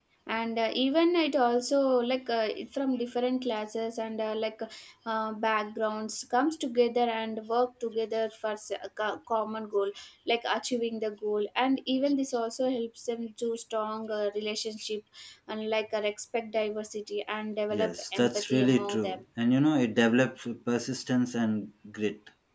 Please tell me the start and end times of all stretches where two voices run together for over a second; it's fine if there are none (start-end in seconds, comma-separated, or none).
17.7-19.2